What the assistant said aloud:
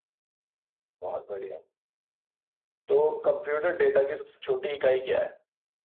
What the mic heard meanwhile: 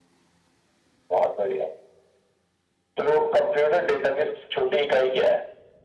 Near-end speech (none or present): none